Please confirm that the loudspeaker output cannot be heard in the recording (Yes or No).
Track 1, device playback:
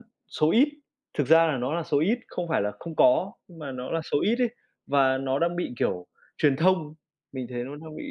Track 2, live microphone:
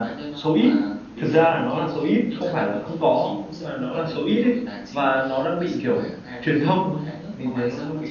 No